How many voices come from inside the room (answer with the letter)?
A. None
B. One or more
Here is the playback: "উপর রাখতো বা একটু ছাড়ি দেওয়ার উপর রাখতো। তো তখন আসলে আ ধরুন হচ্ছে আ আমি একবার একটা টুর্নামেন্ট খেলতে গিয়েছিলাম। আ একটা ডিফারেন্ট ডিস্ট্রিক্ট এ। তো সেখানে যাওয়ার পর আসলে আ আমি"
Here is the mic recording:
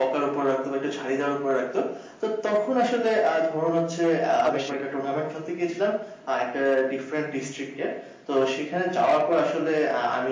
B